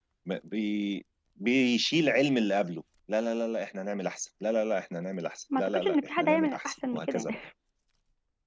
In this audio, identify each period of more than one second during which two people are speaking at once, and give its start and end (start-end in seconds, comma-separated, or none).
5.6-7.4